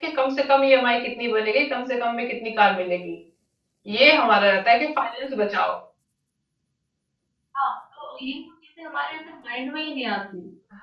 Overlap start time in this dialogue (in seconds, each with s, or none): none